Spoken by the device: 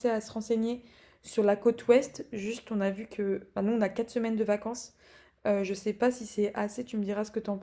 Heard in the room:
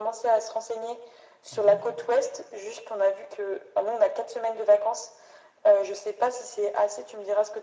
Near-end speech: present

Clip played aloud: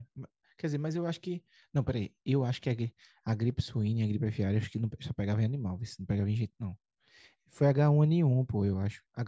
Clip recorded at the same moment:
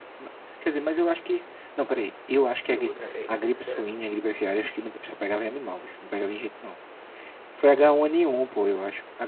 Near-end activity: present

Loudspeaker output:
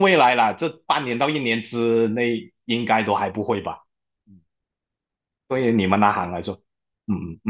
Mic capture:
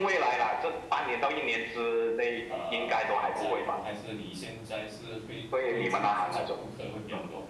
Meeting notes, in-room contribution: present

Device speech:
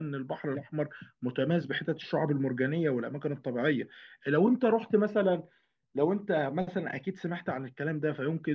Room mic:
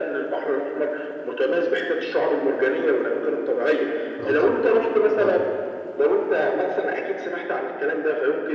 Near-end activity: present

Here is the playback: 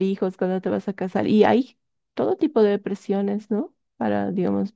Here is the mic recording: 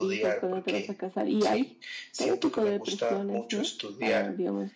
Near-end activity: present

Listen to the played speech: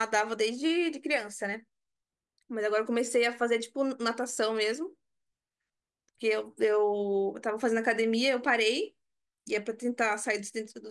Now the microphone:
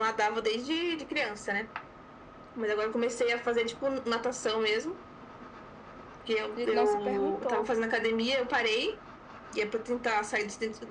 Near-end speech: present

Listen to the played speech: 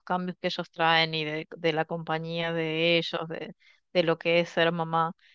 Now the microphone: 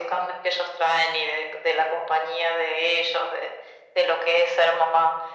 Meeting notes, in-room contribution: none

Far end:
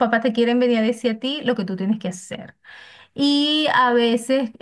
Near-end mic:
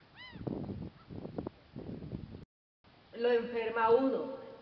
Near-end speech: present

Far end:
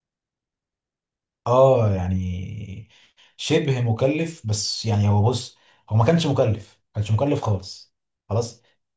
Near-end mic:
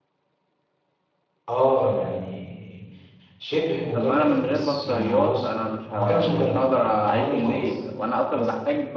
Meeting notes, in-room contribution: present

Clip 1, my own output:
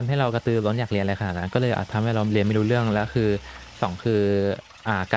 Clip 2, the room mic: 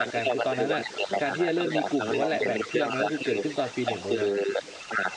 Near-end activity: present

